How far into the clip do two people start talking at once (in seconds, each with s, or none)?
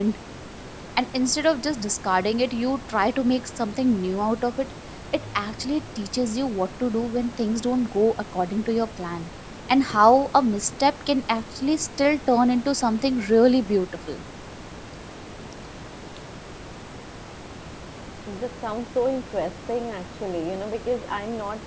none